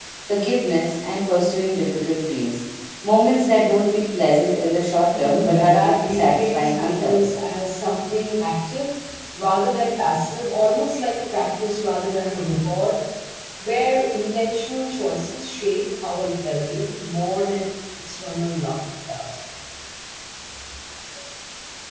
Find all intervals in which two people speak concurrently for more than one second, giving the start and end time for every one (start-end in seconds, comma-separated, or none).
5.2-7.2